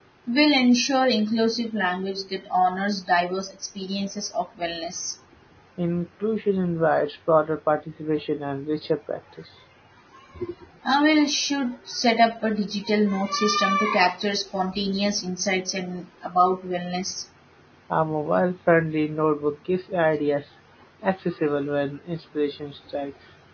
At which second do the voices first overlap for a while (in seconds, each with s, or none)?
none